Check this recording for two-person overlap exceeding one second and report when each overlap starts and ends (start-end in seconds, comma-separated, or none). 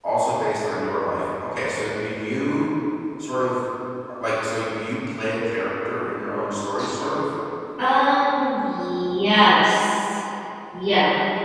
none